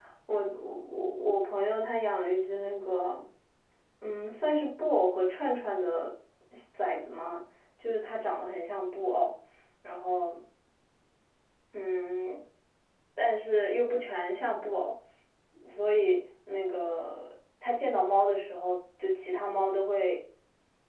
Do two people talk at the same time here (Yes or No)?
No